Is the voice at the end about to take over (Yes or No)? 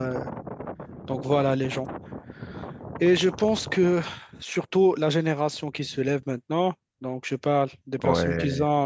No